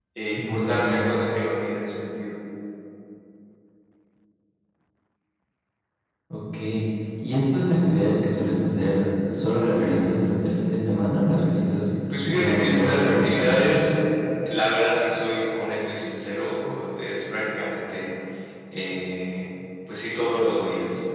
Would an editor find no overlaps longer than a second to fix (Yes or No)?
No